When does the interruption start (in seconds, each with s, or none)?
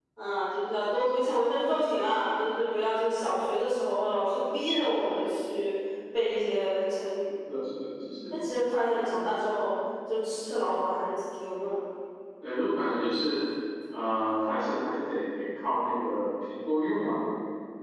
none